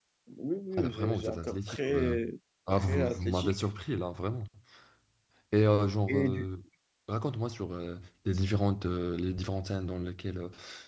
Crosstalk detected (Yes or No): Yes